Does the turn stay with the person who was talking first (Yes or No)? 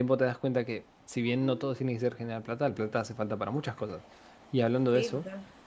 Yes